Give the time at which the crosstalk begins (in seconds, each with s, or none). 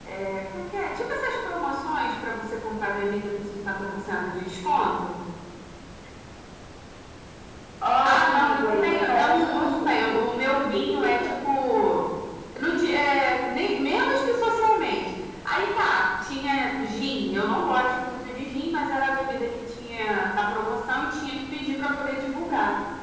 8.1 s